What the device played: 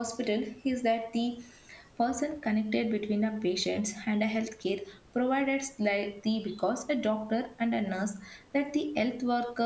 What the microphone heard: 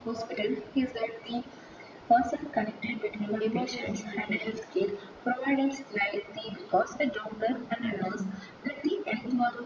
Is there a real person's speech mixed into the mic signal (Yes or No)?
Yes